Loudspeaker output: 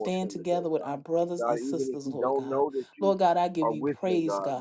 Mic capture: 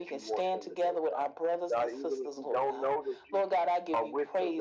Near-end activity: none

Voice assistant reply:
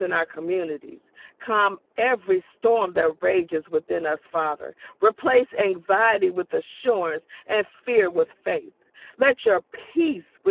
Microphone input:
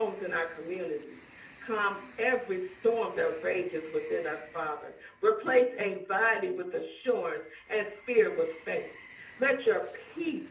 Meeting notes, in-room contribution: none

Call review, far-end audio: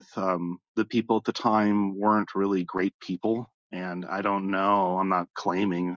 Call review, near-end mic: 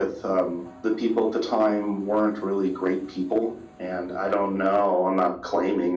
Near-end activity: none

